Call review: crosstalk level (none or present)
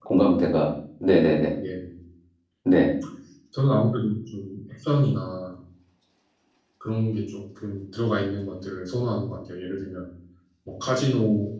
none